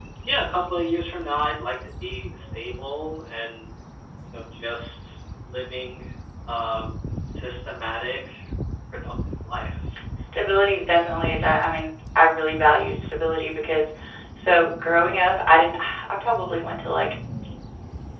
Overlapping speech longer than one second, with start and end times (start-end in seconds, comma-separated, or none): none